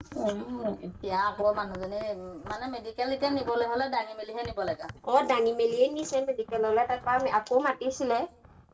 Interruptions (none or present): none